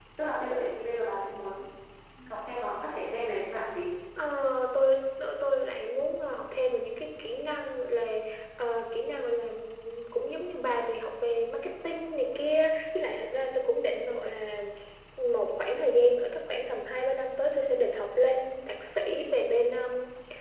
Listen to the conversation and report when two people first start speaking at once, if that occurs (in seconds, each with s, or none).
none